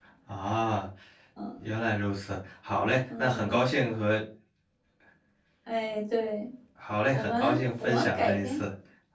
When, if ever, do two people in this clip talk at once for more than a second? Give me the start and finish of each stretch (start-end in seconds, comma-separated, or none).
7.1-8.6